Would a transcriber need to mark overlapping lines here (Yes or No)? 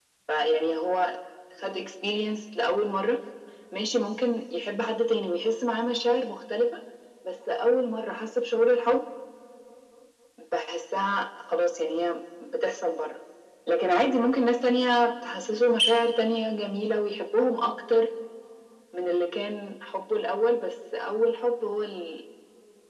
No